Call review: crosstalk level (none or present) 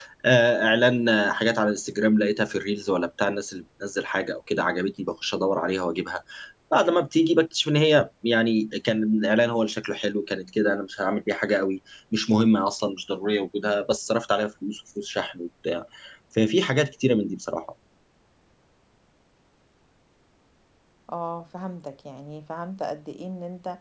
none